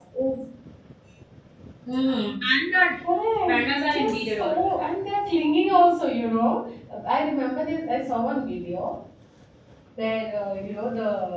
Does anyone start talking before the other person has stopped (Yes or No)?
Yes